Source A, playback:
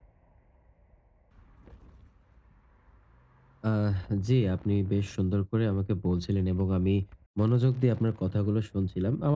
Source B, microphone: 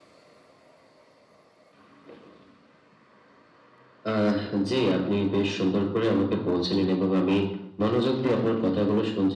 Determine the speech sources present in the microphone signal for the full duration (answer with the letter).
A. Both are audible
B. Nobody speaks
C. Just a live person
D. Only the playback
D